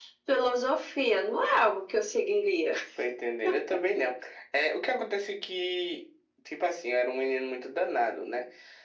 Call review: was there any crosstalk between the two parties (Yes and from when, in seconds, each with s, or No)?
No